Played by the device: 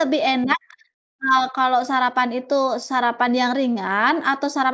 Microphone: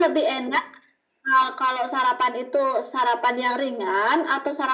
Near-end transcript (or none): none